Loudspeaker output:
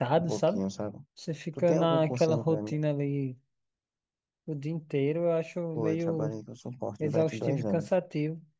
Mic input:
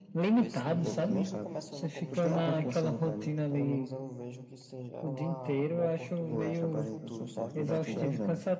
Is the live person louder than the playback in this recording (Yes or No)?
No